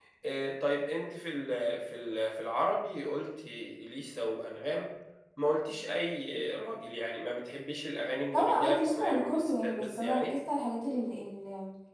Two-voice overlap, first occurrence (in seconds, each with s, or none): 8.3 s